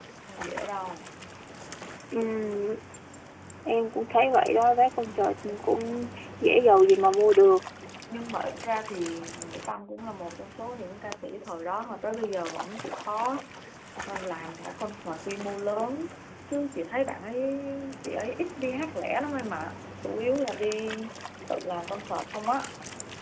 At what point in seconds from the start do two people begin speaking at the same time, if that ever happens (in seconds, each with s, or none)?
none